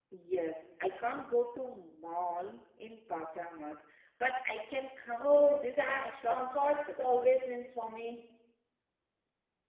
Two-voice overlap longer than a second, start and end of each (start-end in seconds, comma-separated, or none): 5.2-7.3